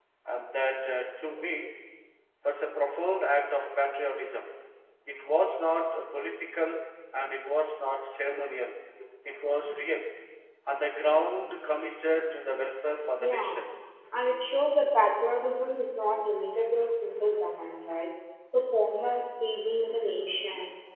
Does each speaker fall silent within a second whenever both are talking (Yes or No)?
Yes